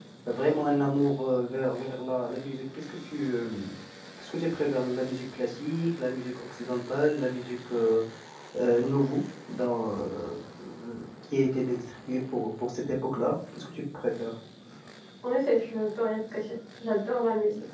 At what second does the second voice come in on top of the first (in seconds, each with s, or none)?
none